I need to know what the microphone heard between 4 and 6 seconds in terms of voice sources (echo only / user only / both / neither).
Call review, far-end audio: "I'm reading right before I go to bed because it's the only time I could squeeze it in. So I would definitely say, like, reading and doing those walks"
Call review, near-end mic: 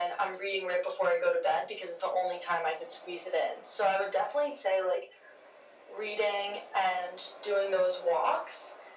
echo only